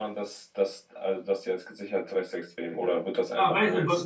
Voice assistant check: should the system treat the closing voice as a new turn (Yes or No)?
Yes